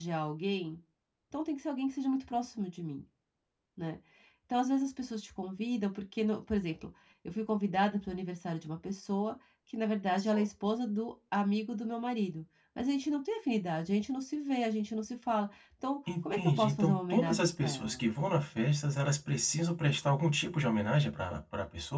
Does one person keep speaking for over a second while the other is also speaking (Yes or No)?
Yes